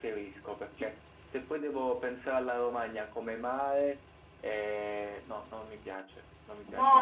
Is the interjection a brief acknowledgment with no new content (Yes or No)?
No